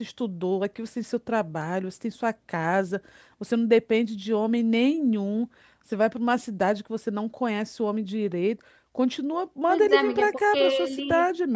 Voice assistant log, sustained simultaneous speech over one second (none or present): present